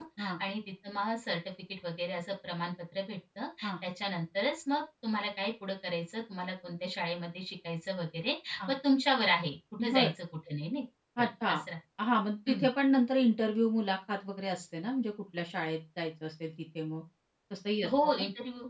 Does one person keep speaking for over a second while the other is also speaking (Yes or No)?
No